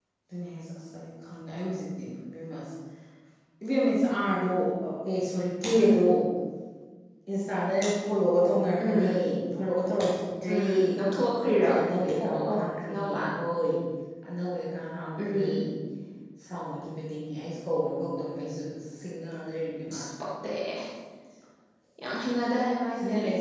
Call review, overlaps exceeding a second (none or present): none